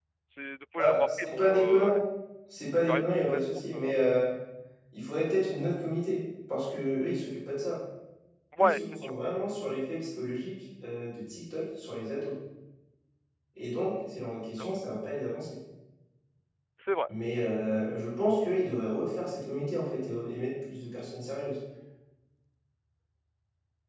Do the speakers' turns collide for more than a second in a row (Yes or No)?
Yes